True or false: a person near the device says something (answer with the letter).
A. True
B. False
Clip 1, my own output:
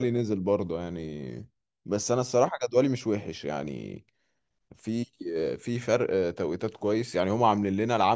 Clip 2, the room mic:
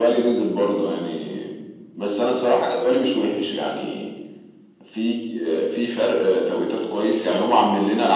B